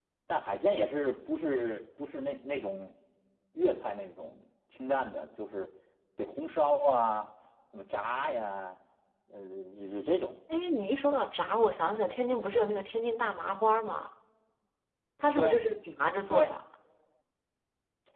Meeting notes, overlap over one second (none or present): none